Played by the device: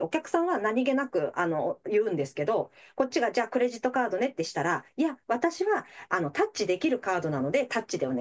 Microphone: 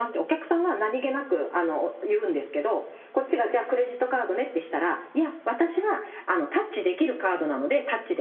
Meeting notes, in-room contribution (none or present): none